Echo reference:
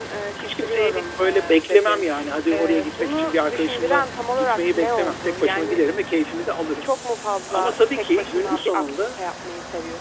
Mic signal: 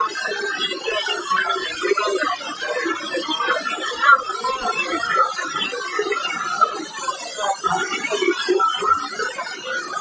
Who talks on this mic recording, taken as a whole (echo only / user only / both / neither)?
echo only